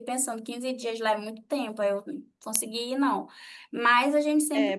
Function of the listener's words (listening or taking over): taking over